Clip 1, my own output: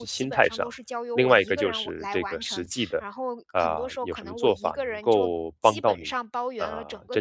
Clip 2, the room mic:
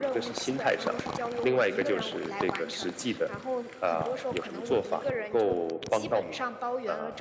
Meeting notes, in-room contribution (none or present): none